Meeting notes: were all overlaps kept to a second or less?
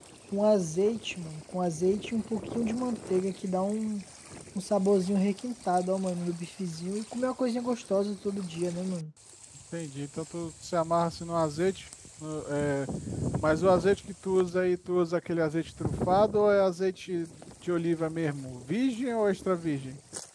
Yes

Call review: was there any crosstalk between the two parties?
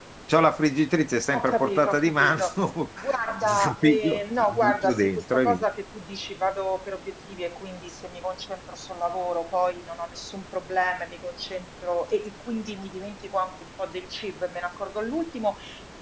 Yes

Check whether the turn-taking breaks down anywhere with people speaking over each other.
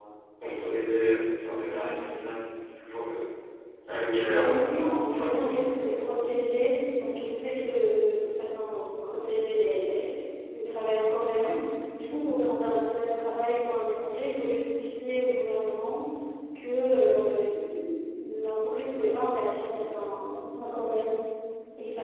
Yes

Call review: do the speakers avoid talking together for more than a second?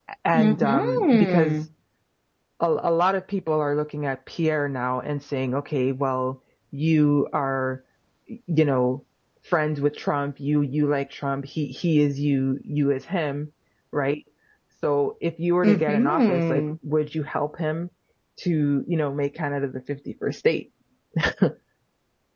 No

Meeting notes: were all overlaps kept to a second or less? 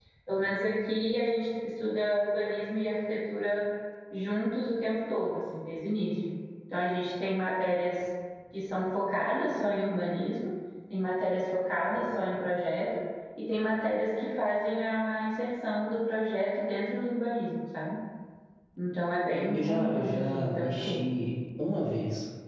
No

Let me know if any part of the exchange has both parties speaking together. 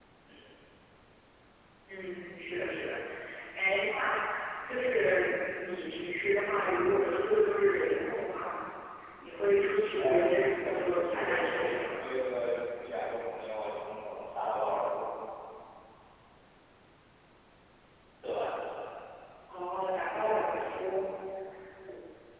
Yes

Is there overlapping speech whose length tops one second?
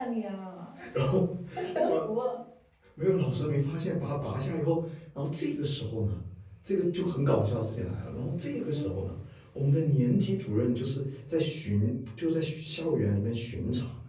No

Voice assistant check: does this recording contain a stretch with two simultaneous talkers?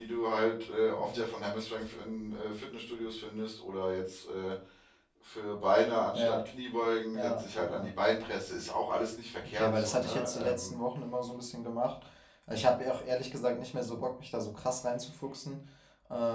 Yes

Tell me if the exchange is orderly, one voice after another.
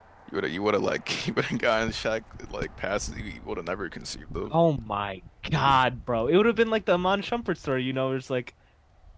Yes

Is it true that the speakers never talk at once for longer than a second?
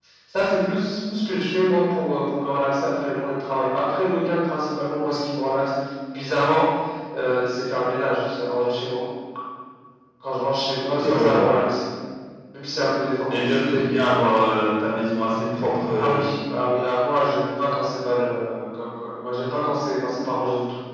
Yes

